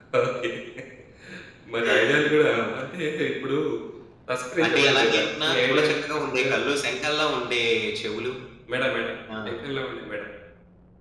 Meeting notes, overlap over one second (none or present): present